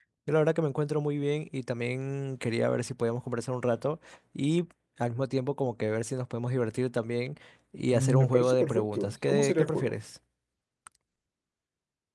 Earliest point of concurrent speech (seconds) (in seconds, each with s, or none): 7.9 s